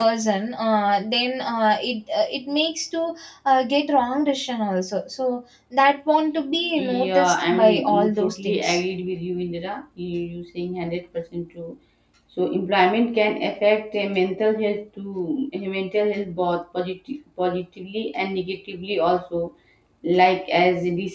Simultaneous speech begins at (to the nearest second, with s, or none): 7 s